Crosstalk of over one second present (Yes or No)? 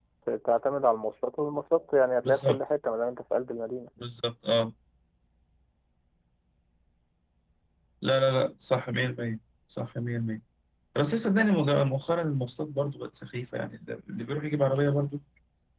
No